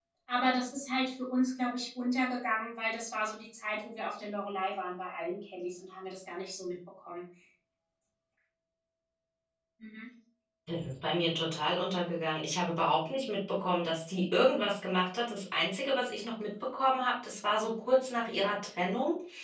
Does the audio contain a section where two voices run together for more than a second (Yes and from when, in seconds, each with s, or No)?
No